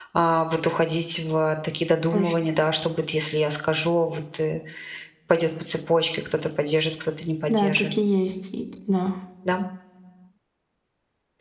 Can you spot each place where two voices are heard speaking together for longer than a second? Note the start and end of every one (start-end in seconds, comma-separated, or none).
none